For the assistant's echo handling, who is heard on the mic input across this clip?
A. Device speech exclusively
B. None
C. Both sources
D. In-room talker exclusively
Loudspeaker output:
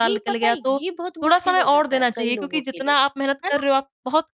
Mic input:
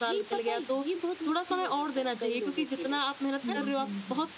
C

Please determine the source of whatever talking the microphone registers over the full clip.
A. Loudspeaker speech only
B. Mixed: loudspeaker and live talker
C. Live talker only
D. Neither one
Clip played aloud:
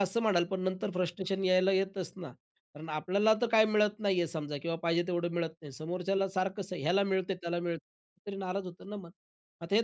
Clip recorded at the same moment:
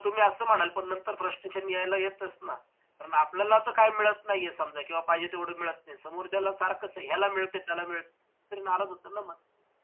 A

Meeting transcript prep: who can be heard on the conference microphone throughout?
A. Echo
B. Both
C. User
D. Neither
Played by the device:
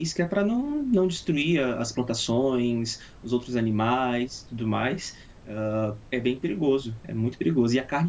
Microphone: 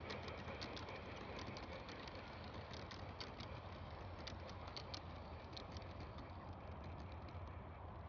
D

